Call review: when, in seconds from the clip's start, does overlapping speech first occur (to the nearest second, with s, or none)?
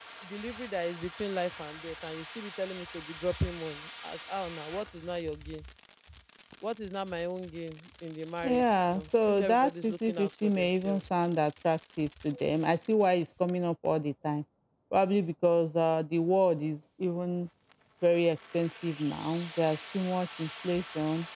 8 s